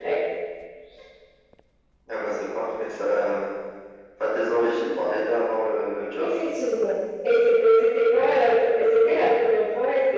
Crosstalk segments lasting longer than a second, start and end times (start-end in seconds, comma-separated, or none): none